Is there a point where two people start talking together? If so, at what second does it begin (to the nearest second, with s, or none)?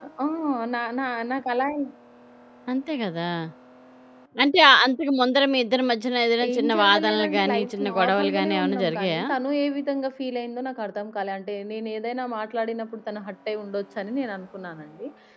6 s